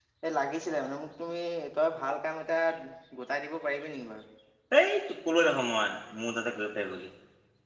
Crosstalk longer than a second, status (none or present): none